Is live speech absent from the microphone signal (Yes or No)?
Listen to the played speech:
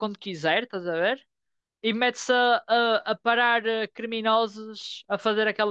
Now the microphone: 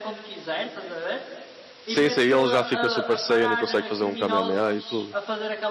No